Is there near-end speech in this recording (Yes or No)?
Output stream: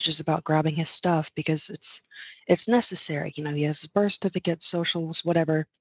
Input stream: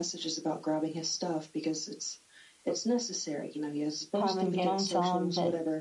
Yes